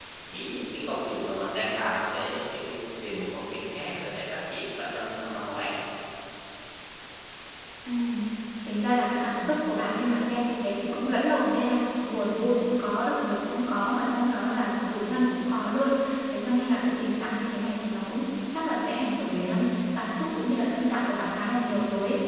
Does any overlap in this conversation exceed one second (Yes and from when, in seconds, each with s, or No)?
No